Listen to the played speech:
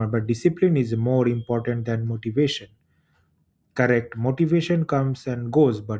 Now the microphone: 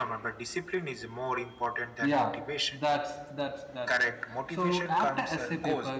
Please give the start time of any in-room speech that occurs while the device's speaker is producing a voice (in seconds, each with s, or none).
2.0 s